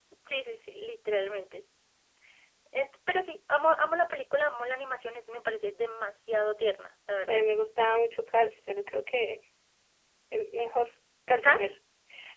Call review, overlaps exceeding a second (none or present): none